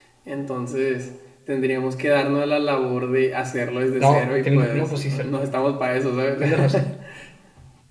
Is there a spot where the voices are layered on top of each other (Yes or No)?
Yes